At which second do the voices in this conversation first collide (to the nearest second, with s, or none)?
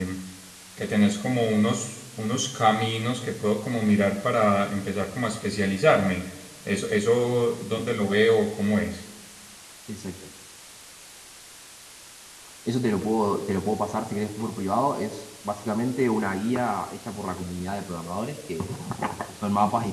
none